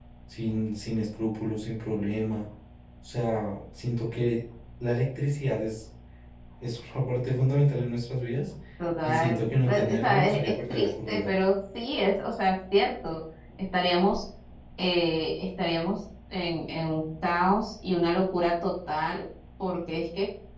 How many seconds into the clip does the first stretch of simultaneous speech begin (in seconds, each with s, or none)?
9.0 s